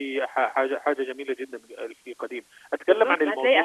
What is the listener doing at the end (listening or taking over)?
taking over